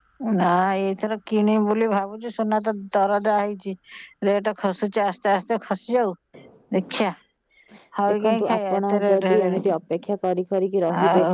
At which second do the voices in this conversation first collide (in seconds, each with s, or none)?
8.1 s